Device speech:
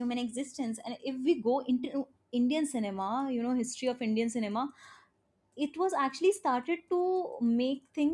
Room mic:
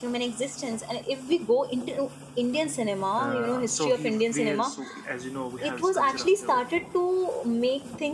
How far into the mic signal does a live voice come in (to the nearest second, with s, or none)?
3 s